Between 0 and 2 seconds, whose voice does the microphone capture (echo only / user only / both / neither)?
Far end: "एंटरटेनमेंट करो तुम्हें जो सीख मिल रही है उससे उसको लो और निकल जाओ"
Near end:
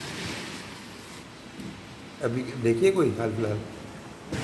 neither